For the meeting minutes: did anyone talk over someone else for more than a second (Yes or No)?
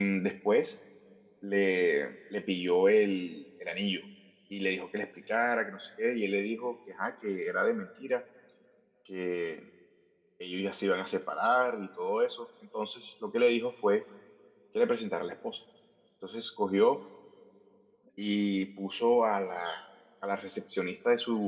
No